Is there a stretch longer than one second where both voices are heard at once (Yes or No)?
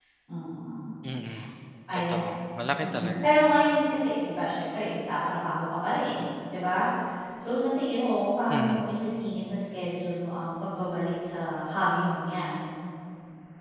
No